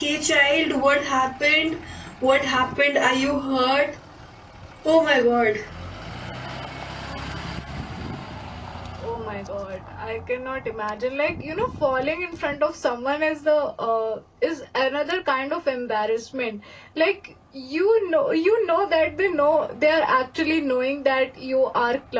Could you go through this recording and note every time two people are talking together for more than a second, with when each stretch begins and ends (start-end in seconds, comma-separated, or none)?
none